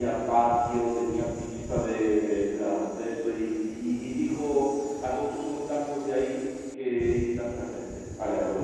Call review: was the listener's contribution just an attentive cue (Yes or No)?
No